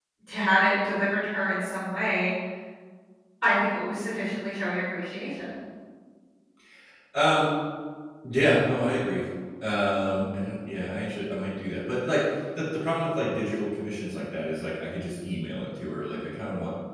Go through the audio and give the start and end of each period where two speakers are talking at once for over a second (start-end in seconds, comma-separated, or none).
none